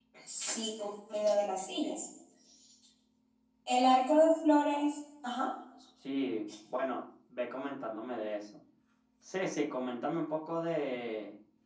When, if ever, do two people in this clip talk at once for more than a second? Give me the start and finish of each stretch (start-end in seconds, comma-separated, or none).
none